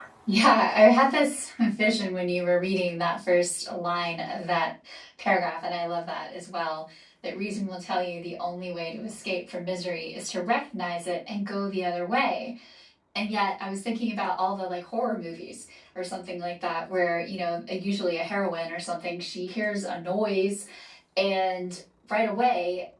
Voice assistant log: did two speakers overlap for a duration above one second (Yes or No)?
No